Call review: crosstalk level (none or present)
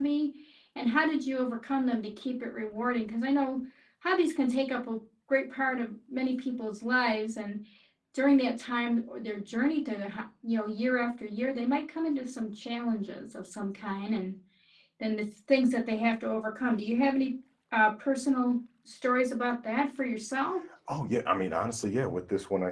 none